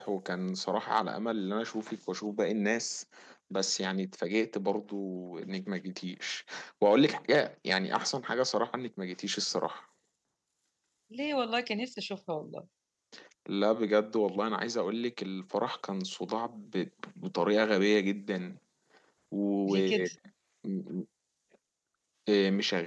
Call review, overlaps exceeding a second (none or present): none